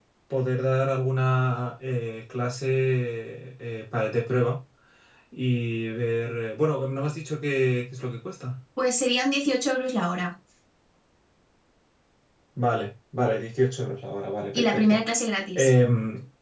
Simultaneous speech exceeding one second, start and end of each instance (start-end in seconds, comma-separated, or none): none